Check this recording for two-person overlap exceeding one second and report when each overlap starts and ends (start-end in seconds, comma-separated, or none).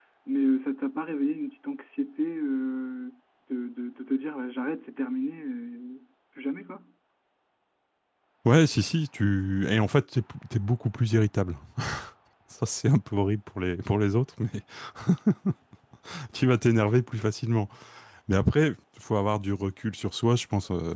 none